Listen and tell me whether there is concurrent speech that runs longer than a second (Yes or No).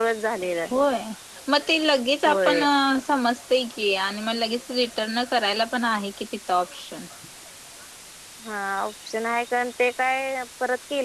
No